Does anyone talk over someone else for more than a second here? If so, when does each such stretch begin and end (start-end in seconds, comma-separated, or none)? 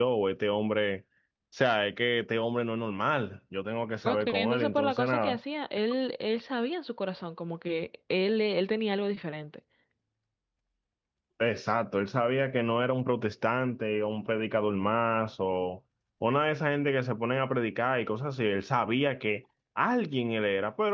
4.0-5.4